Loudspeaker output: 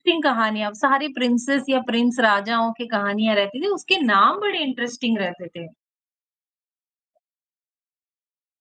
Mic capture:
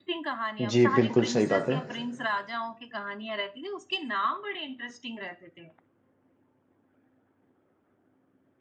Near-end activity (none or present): present